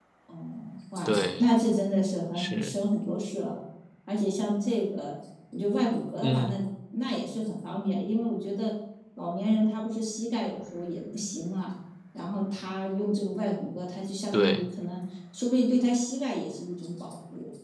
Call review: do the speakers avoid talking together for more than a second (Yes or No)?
Yes